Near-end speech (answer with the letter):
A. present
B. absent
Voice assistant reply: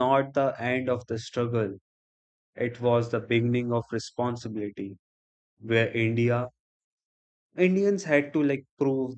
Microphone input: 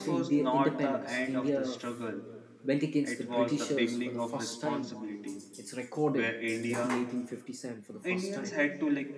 A